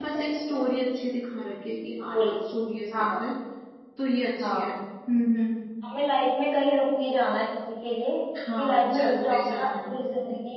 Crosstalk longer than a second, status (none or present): present